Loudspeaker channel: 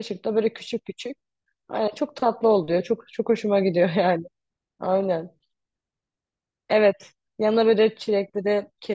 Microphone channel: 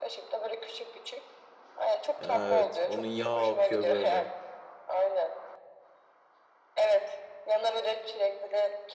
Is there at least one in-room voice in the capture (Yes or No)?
Yes